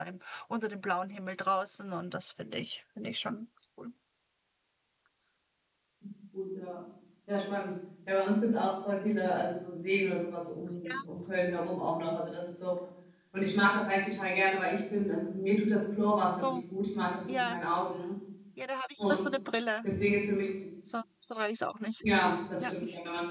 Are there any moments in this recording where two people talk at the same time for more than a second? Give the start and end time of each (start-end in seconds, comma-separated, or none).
none